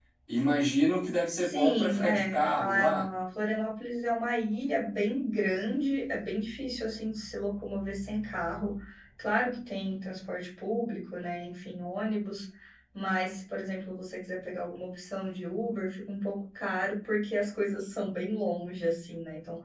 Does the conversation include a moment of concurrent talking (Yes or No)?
Yes